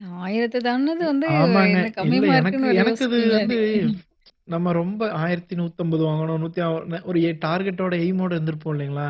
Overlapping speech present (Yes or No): Yes